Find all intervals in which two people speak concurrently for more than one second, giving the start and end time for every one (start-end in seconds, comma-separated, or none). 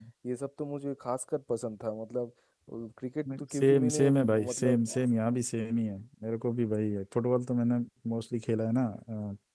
3.5-4.8